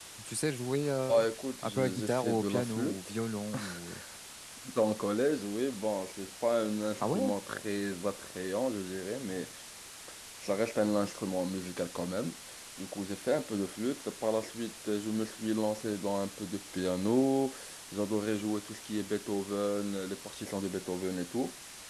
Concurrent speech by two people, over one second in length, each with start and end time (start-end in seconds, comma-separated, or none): 1.6-3.0